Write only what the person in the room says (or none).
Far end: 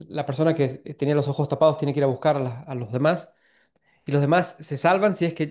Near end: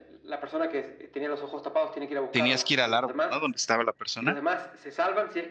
tenías que ir al árbol, ¿no? Donde estaba la persona.